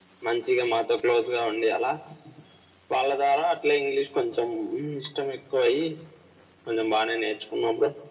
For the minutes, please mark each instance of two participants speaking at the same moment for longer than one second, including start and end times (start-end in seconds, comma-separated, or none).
none